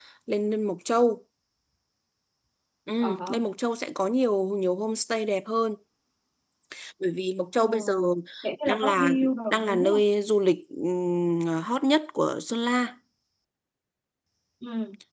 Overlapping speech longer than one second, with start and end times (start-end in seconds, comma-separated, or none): 8.7-10.0